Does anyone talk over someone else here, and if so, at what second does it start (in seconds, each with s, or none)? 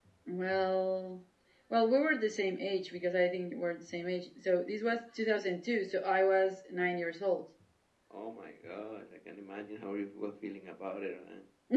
none